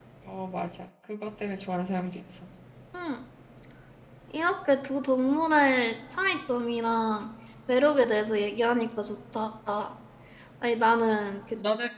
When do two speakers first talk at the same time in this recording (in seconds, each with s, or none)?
none